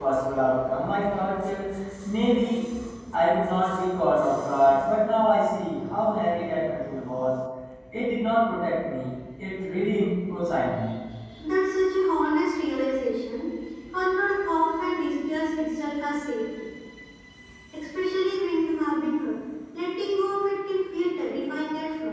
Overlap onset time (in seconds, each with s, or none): none